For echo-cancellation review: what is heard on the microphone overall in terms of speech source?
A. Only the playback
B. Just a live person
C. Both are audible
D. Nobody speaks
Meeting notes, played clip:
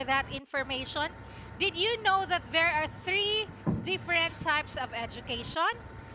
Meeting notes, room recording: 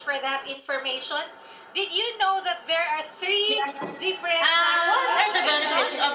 C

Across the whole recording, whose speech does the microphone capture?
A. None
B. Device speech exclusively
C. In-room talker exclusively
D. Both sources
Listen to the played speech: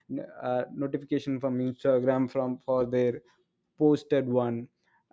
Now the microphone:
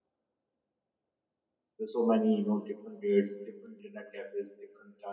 C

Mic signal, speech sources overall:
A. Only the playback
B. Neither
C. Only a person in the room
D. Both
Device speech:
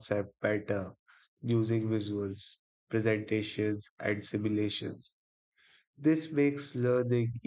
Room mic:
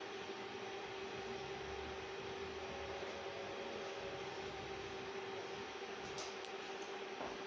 B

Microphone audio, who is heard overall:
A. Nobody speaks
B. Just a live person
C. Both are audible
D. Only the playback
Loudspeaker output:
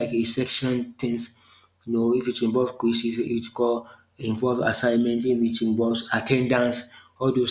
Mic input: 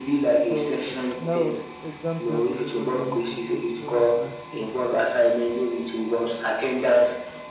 C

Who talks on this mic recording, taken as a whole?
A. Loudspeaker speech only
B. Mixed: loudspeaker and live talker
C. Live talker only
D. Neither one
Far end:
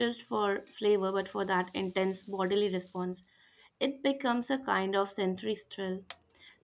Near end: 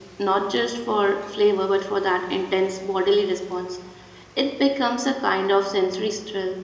A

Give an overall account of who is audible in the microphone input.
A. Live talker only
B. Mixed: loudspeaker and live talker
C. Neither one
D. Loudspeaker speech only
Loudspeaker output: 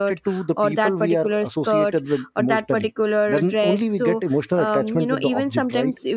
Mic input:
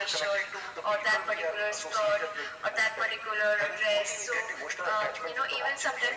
D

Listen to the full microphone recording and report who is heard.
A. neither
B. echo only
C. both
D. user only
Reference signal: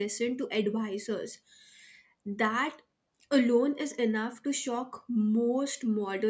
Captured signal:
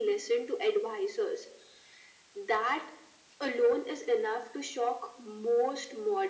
B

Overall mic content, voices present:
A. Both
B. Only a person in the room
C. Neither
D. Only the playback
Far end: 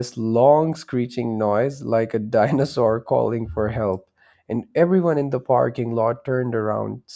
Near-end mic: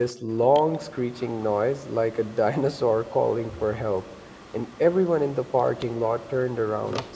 D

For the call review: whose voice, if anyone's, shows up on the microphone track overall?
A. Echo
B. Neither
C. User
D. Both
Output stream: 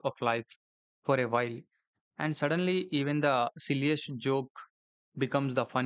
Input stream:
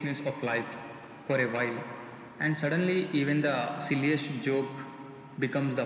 A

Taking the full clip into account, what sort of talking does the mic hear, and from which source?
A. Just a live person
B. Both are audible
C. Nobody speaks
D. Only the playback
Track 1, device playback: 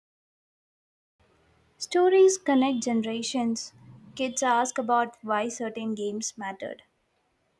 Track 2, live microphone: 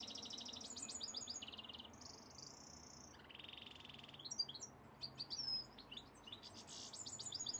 C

